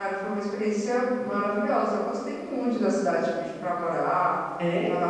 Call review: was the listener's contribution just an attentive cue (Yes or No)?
Yes